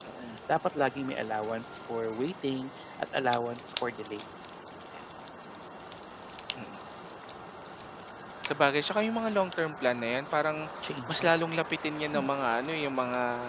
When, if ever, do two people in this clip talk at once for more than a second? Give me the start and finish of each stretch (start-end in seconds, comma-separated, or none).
none